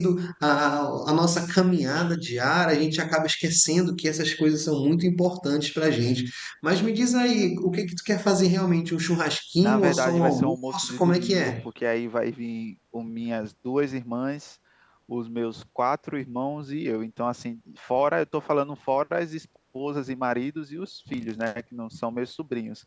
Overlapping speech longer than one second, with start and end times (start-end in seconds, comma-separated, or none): 9.6-11.7